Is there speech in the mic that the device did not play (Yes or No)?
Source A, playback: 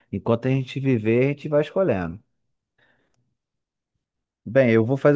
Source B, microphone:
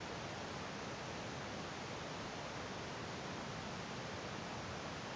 No